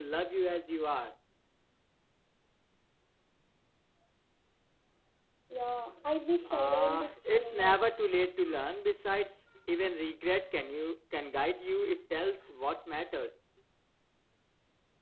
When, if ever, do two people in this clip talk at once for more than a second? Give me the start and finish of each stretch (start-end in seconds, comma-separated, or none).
6.5-7.8